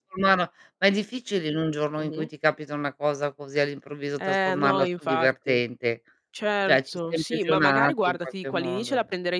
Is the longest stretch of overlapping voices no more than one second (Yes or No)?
No